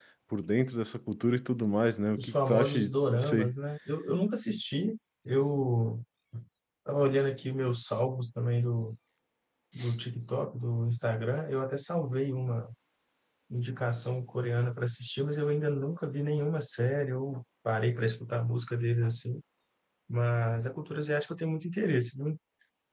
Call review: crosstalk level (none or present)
present